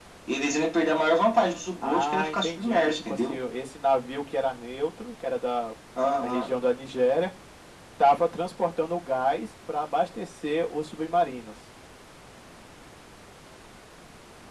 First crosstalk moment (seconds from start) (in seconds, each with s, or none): 1.8 s